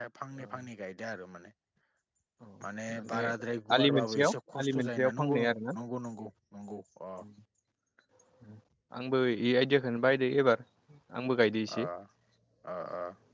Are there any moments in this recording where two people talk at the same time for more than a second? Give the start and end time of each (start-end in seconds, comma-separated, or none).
3.8-5.4